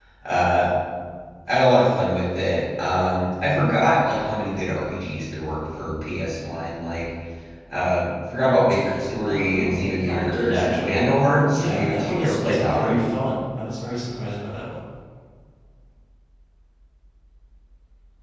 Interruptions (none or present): present